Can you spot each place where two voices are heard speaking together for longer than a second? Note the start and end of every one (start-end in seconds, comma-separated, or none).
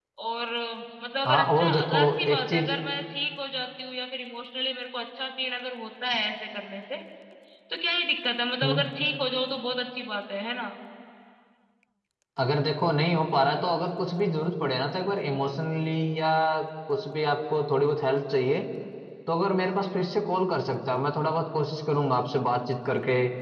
1.3-2.7